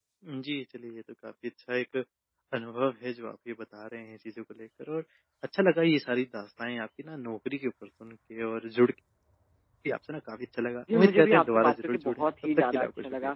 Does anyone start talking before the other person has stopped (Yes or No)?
Yes